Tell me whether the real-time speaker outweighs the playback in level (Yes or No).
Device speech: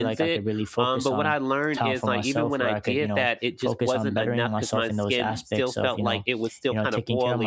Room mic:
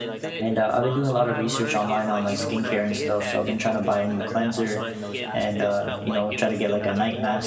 Yes